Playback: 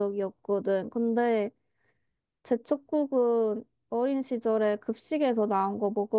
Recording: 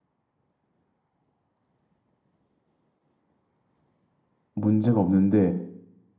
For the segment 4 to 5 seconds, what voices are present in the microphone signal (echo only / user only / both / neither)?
user only